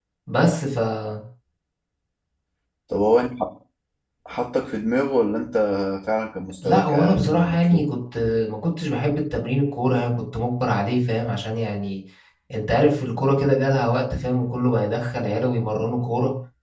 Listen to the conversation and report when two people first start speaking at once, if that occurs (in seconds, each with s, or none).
6.6 s